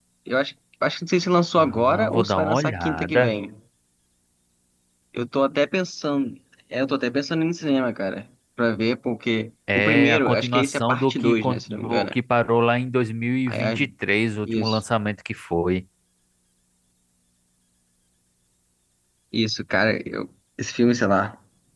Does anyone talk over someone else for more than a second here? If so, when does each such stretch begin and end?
1.6-3.3, 9.8-12.1

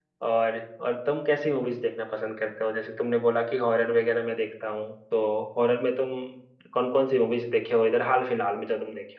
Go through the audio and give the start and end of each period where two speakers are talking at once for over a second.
none

